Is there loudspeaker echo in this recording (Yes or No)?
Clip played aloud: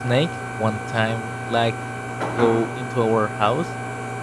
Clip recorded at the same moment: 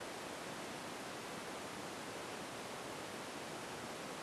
No